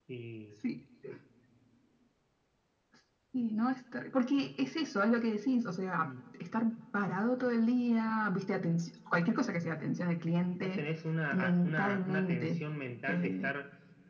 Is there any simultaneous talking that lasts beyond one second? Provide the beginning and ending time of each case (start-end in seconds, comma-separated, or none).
11.3-12.6